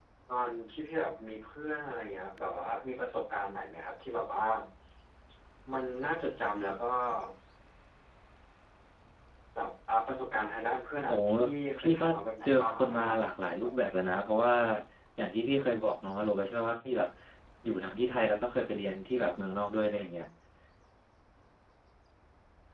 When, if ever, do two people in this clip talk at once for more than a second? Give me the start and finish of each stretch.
12.4-13.7

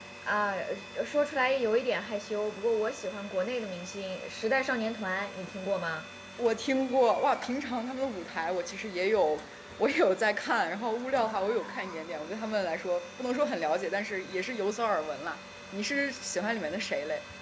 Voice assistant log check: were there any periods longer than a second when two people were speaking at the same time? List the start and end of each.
none

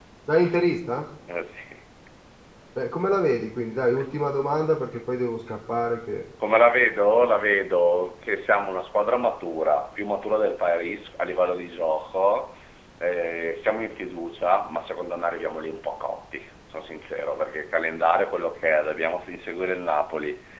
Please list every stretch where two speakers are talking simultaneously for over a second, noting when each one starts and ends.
none

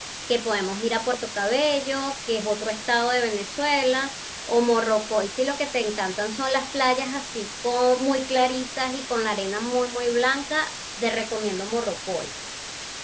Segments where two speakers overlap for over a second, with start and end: none

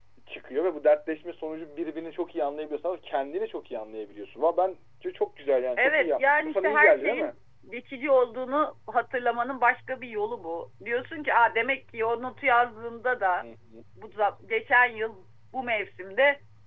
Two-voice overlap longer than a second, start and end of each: 5.8-7.3

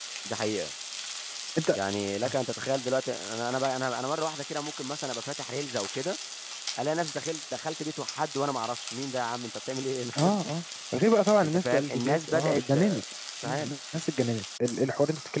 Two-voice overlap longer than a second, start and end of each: 11.4-12.7

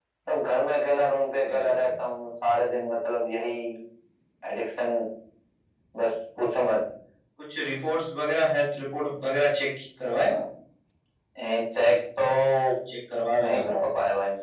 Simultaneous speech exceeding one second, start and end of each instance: none

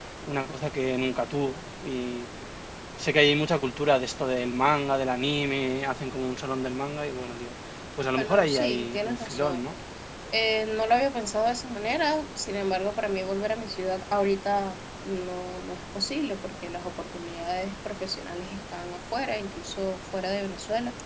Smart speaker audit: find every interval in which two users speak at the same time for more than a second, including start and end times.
8.2-9.6

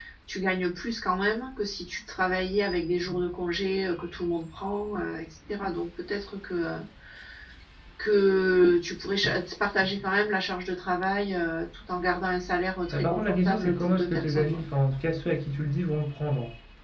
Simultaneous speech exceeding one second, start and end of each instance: 12.9-14.6

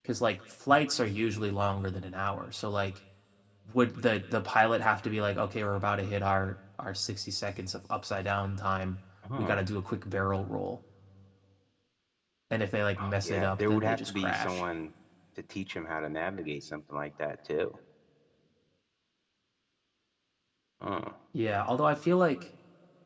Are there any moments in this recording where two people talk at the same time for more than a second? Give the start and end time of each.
13.0-14.6

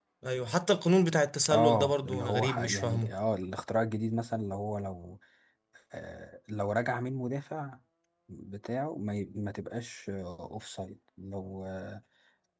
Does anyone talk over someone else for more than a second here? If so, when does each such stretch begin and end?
1.5-3.1

